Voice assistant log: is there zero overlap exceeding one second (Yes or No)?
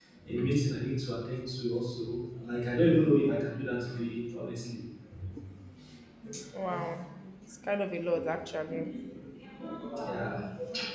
Yes